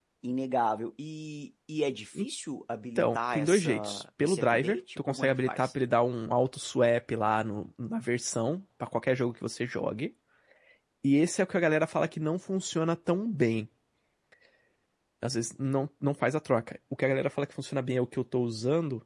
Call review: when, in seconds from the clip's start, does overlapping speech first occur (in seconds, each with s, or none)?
3.0 s